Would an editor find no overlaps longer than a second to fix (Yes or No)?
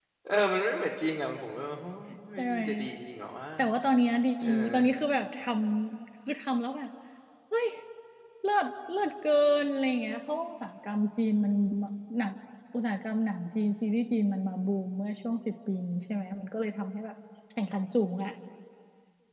Yes